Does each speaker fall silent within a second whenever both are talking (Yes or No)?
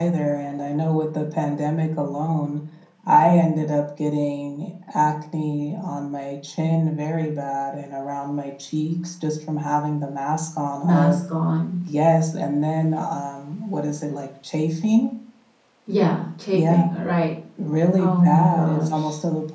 No